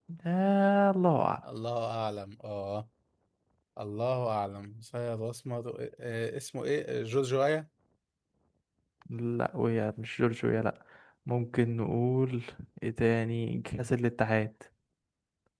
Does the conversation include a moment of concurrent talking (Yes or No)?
No